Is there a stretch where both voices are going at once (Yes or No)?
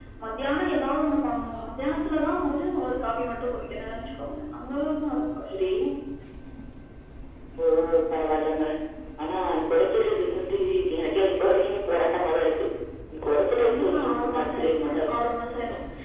Yes